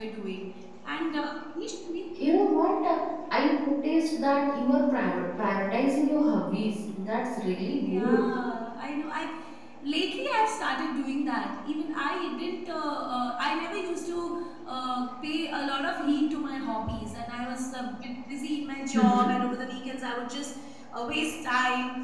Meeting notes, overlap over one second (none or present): none